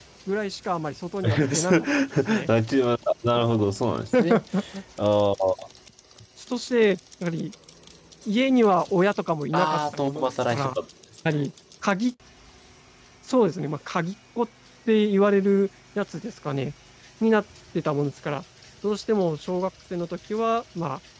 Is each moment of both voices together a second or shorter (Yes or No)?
No